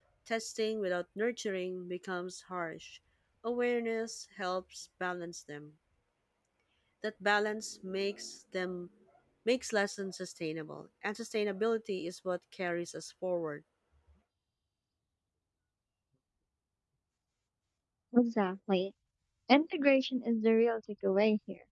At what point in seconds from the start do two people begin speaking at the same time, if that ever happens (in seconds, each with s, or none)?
none